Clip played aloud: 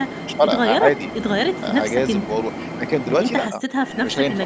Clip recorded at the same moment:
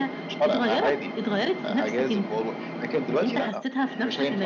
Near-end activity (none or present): none